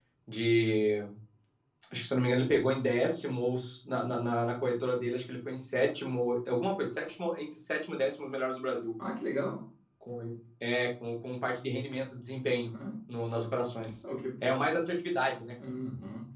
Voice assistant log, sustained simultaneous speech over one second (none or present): none